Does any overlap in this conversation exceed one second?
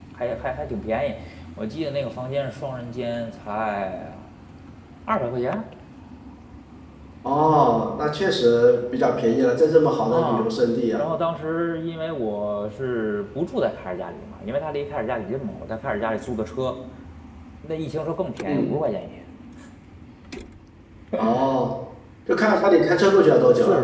No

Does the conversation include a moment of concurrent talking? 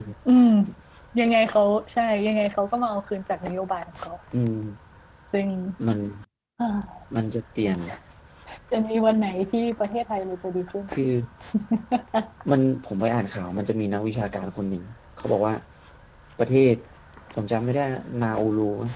No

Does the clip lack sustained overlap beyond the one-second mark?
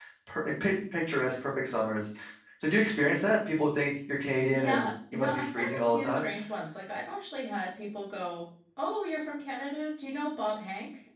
No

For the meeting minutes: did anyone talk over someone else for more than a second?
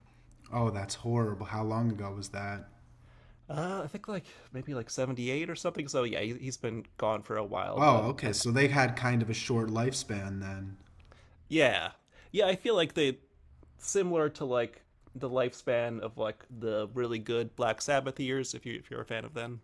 No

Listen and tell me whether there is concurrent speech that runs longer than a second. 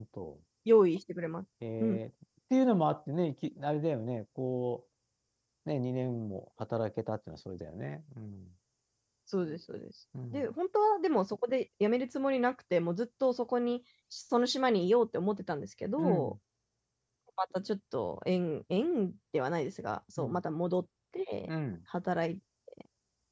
No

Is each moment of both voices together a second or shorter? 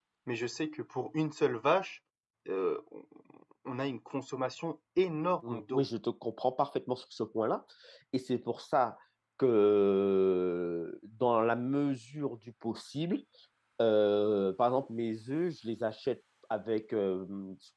Yes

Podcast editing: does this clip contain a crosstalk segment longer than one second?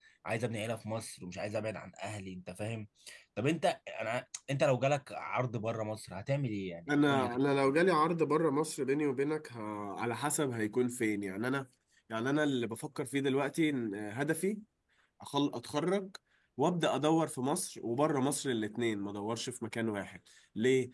No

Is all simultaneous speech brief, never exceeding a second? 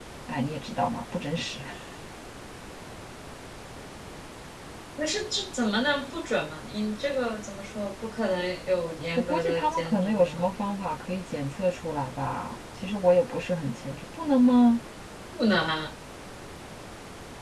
No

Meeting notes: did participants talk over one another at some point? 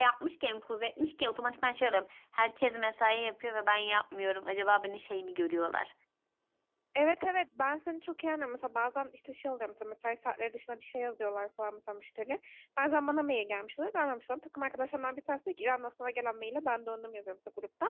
No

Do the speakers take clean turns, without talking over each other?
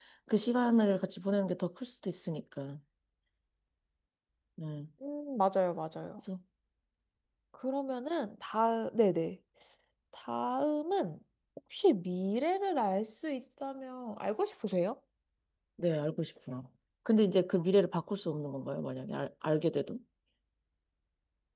Yes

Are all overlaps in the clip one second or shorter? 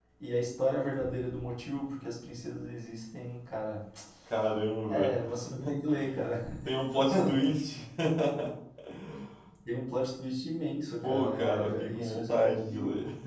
No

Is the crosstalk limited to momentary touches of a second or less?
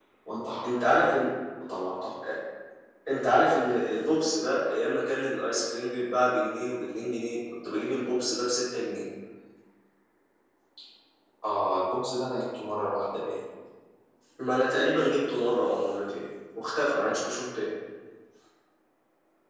Yes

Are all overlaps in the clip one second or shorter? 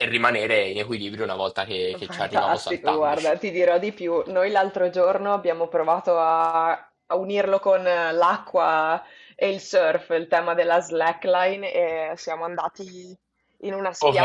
No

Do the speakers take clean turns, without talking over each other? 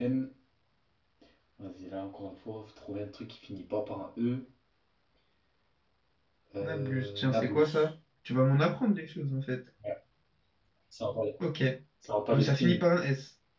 No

